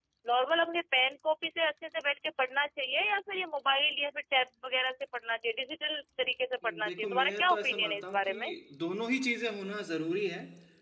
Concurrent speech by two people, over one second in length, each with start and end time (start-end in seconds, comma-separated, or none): 6.8-8.5